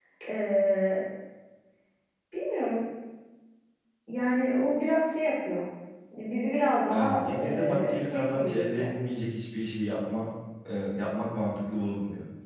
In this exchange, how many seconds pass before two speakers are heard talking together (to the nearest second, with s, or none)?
7 s